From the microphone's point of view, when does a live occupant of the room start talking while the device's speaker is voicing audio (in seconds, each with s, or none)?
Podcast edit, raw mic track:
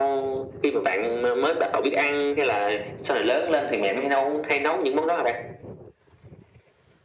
none